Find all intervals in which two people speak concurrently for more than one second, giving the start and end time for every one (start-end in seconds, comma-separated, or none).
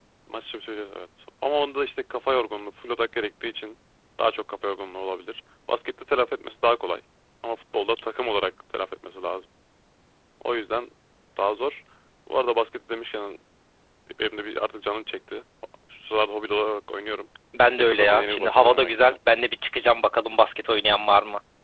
17.8-19.2